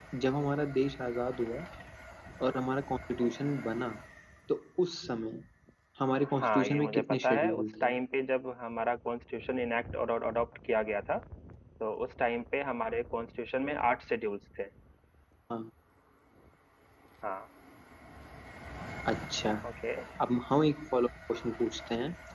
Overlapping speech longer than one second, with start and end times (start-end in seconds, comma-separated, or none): 6.3-7.9